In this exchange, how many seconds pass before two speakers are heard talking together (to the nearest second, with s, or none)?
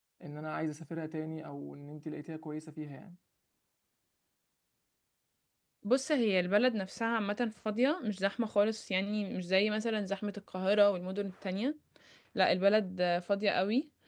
none